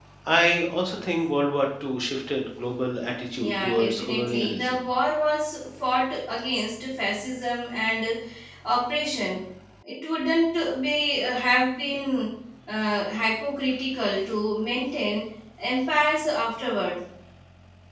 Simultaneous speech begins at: 3.4 s

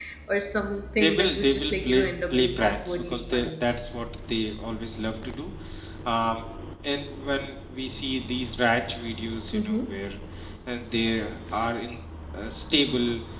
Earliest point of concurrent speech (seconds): 1.0 s

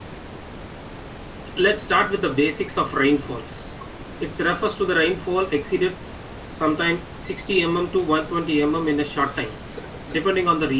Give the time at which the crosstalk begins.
none

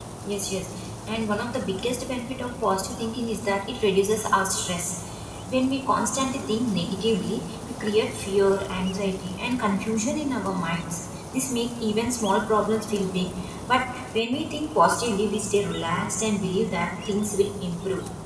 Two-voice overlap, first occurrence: none

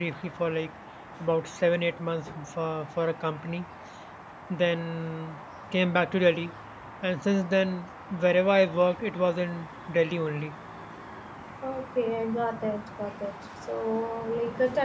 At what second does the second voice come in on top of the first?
none

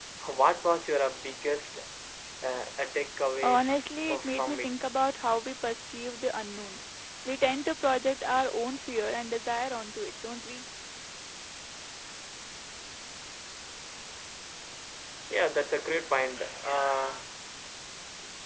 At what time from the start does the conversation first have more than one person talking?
3.4 s

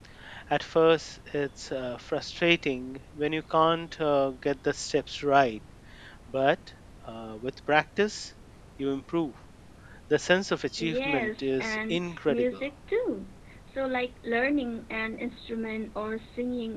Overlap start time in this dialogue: 10.8 s

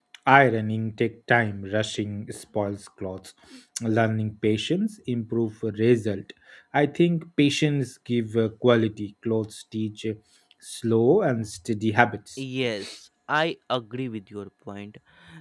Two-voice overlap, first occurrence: none

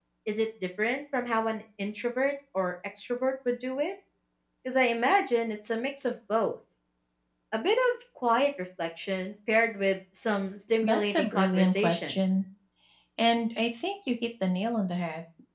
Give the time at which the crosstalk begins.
10.8 s

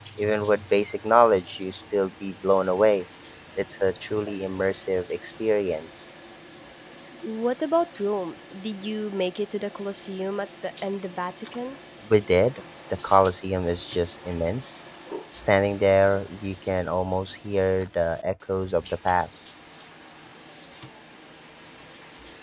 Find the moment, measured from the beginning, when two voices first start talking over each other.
none

